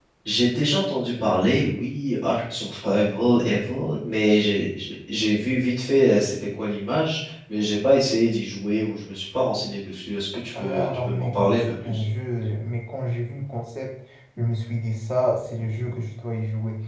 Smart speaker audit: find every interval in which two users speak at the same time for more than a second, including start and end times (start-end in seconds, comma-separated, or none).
10.6-12.0